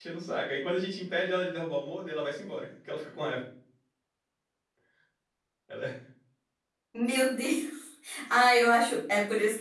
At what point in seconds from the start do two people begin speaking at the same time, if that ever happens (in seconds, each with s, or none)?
none